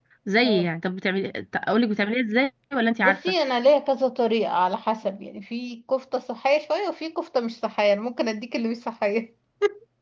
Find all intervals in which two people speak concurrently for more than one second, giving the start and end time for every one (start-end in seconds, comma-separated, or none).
none